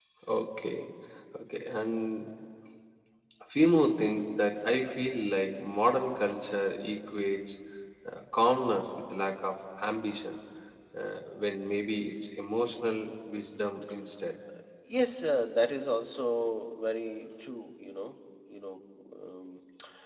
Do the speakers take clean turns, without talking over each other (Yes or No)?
Yes